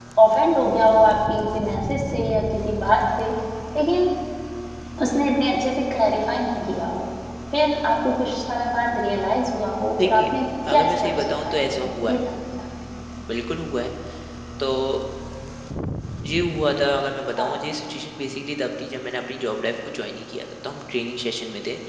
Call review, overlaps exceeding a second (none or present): present